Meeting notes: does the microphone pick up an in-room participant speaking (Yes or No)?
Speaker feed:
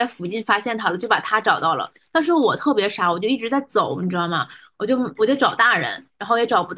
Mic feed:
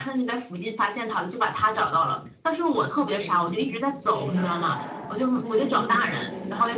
Yes